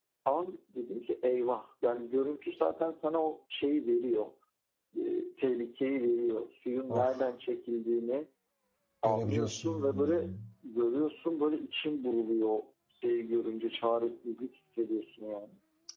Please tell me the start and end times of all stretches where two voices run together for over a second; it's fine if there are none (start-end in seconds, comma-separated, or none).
9.0-10.3